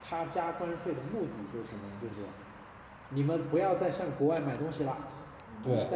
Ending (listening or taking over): listening